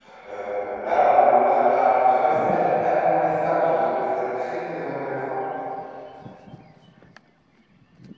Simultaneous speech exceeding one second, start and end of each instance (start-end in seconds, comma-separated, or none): none